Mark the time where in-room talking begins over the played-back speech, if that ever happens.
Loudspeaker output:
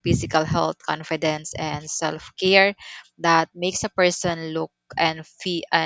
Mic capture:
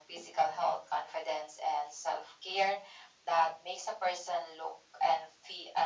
none

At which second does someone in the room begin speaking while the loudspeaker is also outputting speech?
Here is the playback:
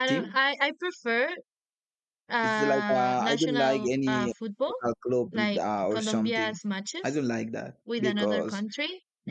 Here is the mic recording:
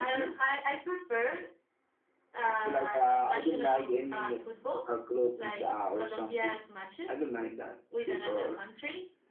none

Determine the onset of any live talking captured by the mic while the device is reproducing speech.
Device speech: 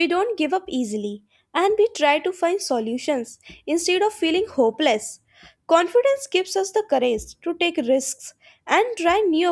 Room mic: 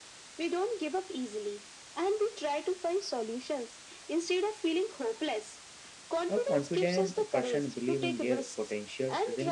6 s

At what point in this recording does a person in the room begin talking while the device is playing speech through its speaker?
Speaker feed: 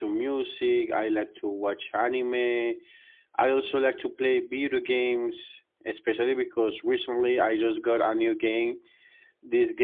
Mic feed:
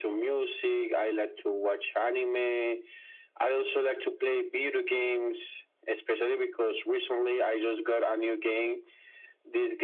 none

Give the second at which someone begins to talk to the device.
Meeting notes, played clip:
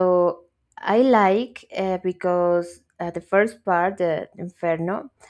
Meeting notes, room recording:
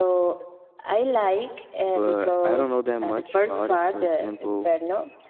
2 s

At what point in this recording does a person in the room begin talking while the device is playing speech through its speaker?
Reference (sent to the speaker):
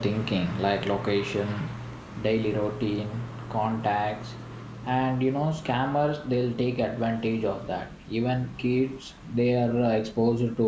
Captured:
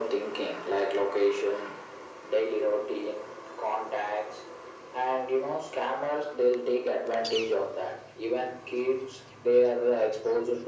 none

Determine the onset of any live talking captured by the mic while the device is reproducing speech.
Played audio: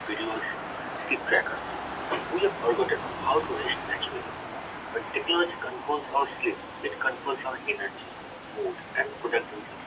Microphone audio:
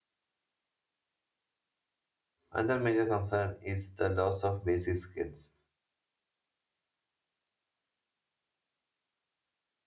3 s

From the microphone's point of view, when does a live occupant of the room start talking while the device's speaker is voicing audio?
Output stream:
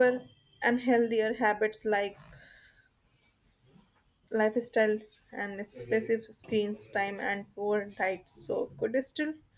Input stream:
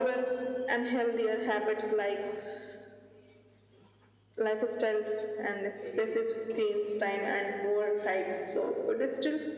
none

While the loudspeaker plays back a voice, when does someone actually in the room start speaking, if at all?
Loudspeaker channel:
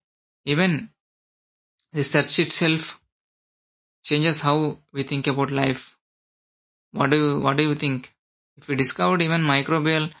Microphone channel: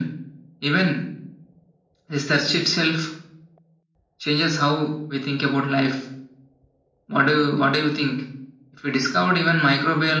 none

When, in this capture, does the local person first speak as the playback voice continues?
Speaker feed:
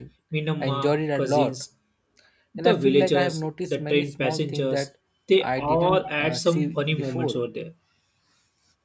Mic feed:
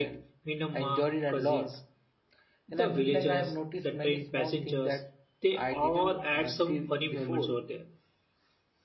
none

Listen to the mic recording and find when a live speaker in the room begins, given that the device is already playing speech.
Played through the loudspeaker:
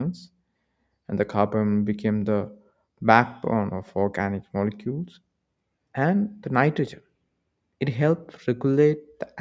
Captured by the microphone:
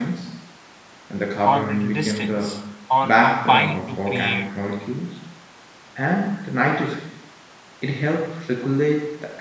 1 s

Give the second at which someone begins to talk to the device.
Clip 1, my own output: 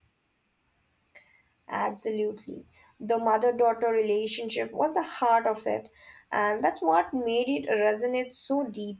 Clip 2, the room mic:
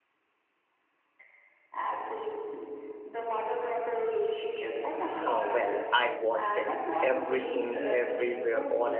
5 s

